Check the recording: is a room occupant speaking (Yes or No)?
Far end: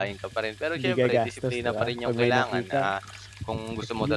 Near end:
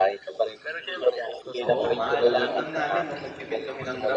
Yes